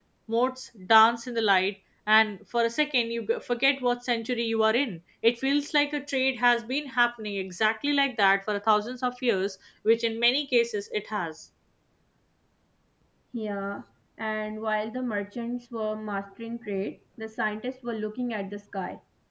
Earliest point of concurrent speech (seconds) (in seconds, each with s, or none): none